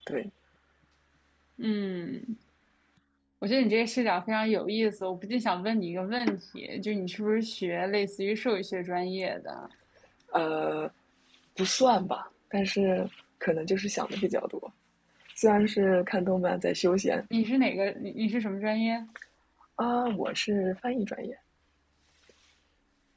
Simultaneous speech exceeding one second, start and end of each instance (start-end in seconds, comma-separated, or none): none